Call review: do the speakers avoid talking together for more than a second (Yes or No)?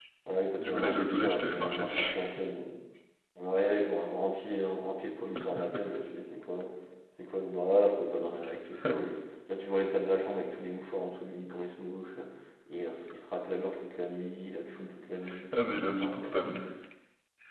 No